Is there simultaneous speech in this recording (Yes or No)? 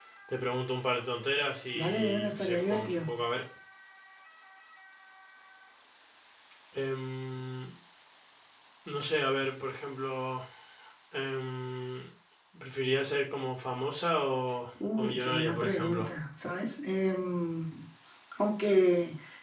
Yes